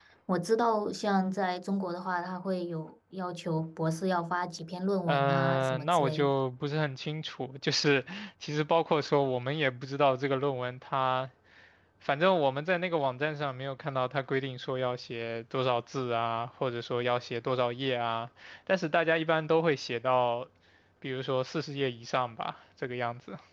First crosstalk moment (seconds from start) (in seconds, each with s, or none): 5.1 s